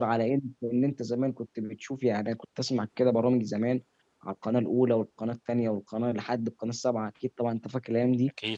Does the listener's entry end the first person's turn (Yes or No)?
No